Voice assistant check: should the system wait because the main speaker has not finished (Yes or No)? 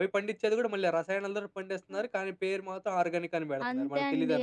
No